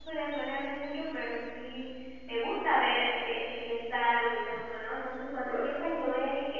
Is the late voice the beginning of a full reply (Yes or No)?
No